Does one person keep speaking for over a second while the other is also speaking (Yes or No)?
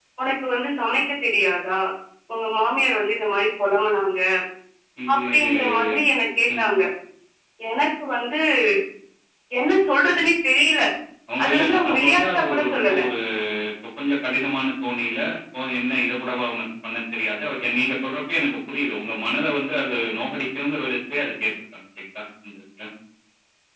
Yes